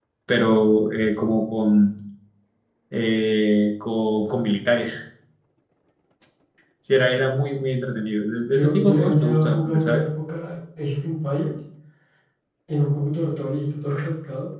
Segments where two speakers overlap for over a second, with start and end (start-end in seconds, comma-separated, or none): 8.5-10.1